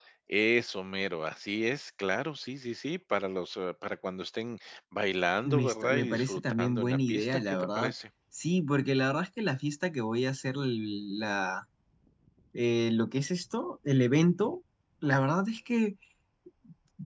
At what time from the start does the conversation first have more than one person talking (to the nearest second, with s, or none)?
5 s